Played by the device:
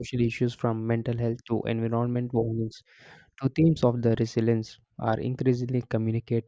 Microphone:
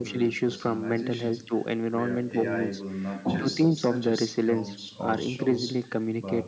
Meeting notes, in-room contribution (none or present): present